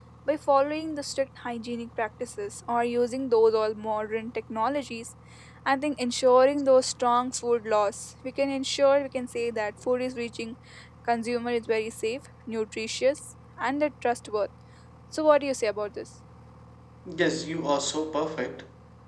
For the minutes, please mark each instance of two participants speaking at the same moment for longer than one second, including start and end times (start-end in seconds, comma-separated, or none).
none